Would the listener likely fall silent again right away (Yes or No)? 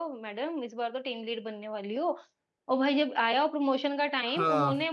Yes